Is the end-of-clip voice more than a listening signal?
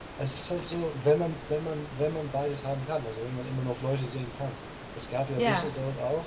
No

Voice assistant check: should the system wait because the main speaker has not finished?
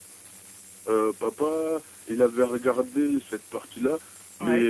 Yes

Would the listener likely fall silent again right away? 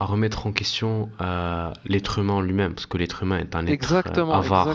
No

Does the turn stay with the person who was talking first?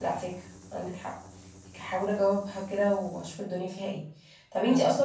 Yes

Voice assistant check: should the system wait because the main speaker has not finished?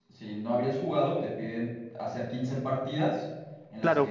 No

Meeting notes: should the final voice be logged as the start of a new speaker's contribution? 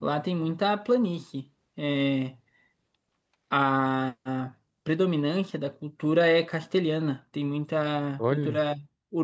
No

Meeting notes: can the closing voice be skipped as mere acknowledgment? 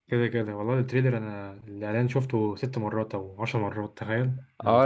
No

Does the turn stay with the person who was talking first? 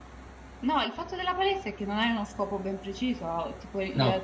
Yes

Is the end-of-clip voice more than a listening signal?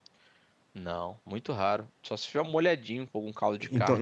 Yes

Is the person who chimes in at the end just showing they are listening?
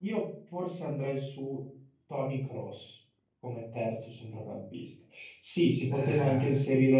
Yes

